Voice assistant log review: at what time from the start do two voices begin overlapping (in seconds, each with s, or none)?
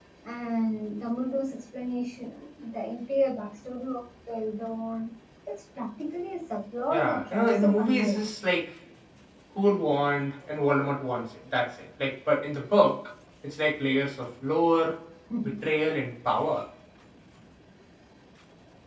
6.9 s